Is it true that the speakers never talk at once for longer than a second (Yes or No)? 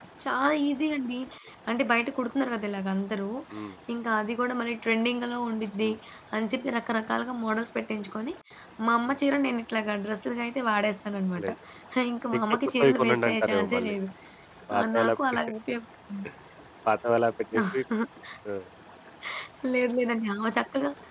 No